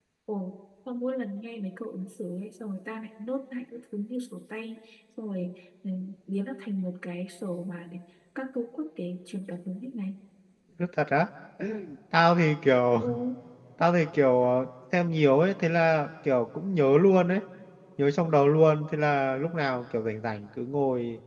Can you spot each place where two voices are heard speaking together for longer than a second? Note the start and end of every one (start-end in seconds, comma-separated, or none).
none